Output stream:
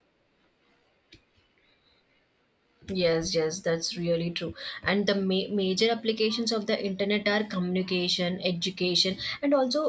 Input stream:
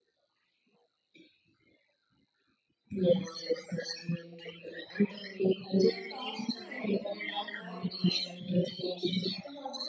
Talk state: both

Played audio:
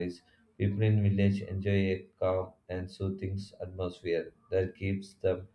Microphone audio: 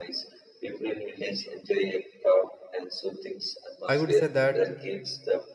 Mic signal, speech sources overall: both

